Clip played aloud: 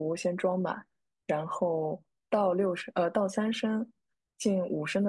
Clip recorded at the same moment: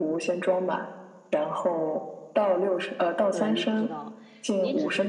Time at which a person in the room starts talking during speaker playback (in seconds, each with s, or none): 3.3 s